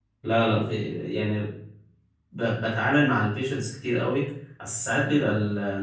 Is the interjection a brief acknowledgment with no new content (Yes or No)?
Yes